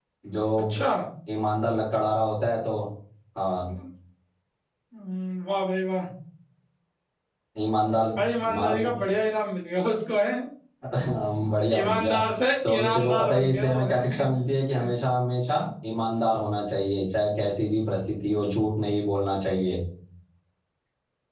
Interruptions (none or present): present